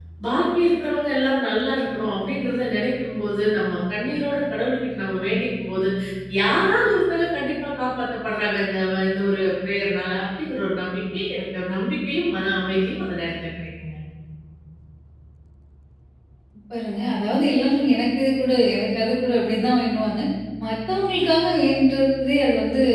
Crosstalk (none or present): none